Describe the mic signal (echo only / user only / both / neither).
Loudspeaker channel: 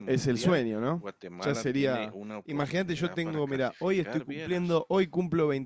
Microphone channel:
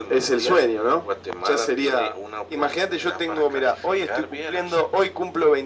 echo only